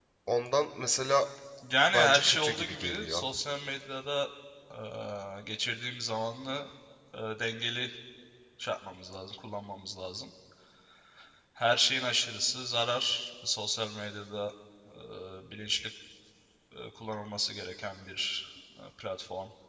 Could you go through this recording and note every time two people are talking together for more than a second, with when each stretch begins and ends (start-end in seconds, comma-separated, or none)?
1.9-3.2